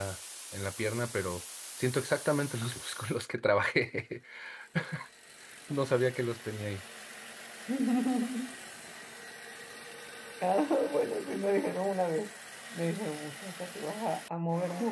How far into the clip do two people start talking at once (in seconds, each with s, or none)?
none